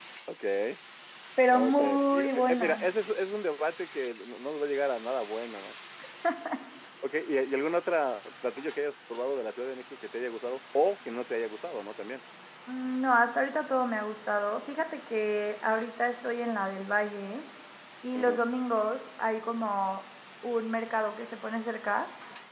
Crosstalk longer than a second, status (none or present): present